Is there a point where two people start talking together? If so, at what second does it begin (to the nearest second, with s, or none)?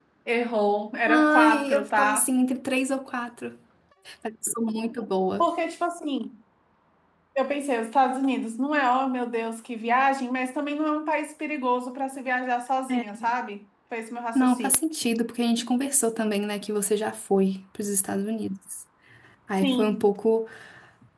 1 s